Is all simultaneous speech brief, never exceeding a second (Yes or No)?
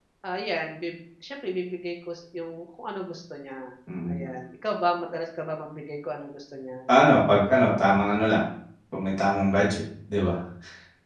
Yes